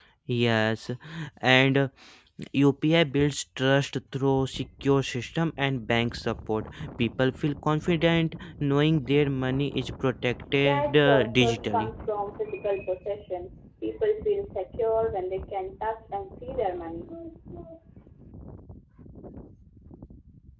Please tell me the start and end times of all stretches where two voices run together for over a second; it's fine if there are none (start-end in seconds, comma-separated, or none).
10.6-11.9